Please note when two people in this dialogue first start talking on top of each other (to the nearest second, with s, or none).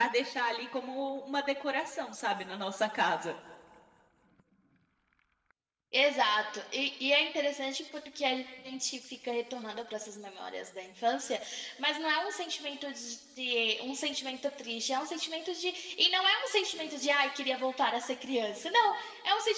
none